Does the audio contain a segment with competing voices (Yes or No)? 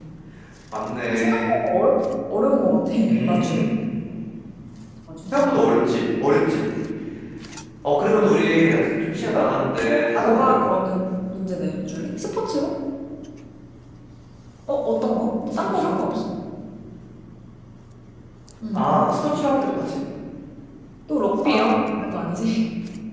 Yes